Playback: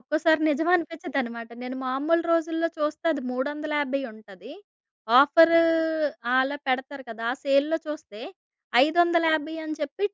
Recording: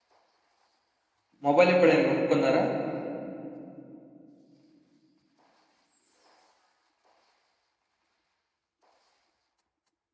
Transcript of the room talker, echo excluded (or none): మొబైల్ ఎప్పుడైనా కొనుక్కున్నారా?